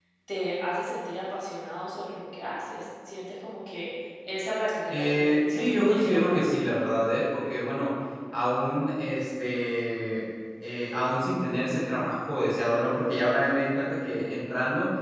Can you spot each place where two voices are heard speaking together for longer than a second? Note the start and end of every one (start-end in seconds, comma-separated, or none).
4.9-6.6